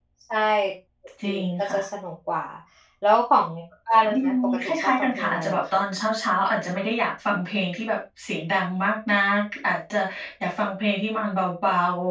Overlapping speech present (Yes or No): Yes